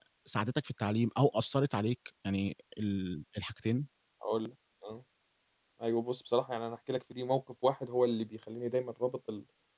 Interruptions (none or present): none